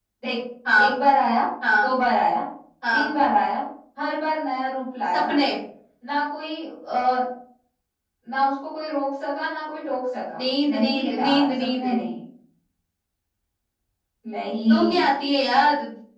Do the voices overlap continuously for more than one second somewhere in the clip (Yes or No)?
Yes